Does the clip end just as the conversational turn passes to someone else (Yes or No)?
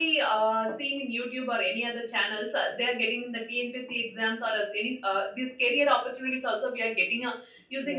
Yes